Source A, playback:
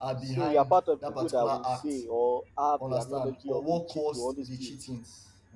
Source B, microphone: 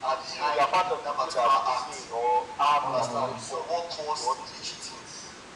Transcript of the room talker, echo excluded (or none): more than once.